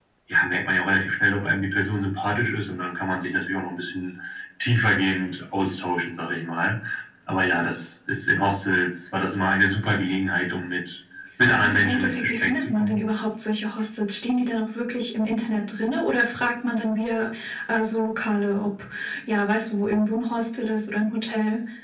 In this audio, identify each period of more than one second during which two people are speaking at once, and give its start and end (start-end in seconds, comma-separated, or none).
11.6-13.0